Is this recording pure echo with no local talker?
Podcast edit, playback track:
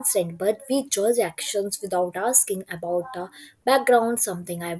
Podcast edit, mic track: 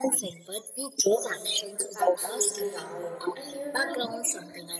No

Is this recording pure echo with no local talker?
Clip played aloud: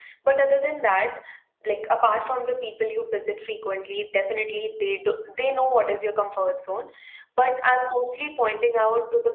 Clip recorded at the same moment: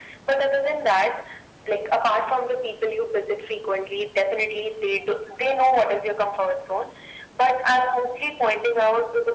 Yes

